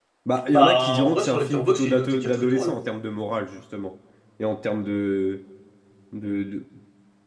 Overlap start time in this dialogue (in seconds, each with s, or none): 0.5 s